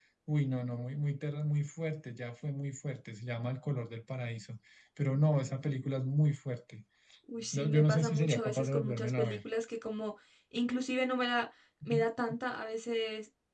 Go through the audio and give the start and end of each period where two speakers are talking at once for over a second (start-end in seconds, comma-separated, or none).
7.5-9.4